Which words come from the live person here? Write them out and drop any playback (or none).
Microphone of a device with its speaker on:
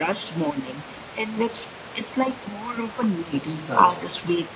the tea culture.